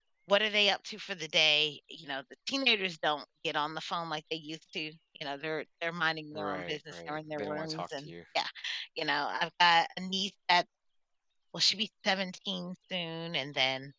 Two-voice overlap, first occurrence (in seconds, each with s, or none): 6.3 s